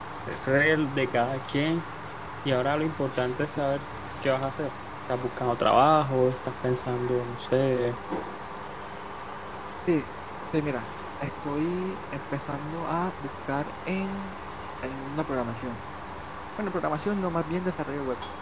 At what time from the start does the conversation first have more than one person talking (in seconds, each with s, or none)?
none